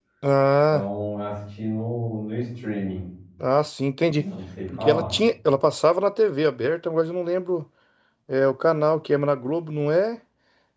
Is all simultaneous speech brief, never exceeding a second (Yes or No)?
Yes